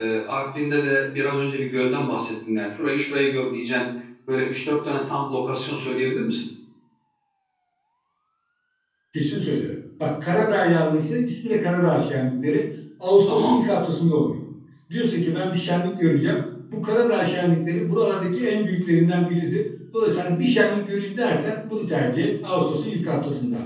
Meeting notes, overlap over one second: none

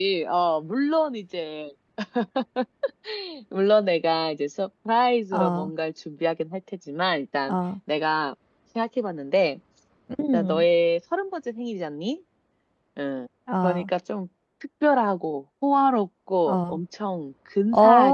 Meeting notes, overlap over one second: none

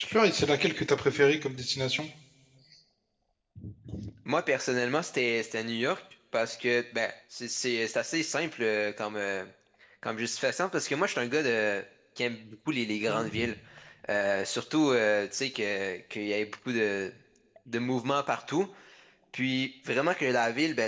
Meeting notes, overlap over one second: none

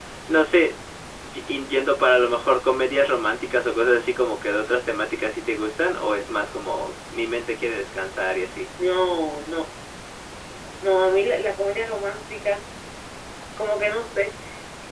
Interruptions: none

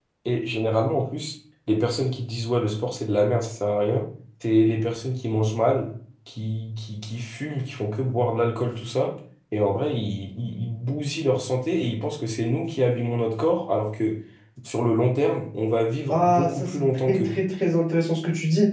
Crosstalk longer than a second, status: present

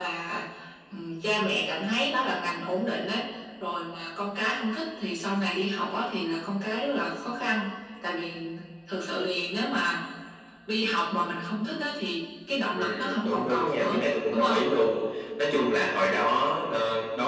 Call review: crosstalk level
present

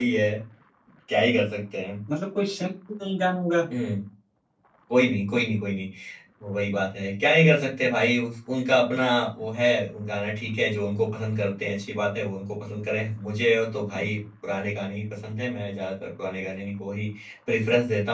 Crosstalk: none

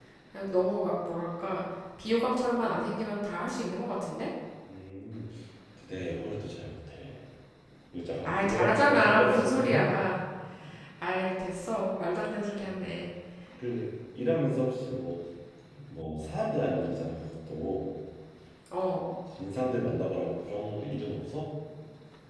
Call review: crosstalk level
present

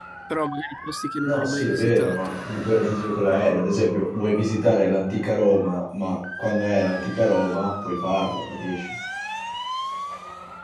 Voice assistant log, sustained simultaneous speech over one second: present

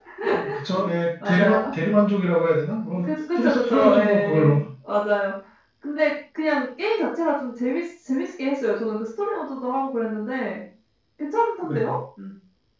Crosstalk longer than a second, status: present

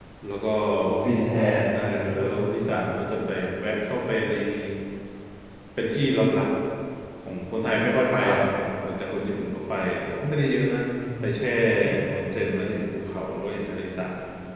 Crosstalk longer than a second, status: none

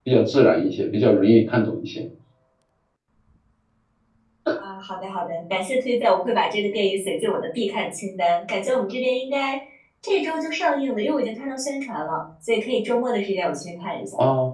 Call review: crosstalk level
none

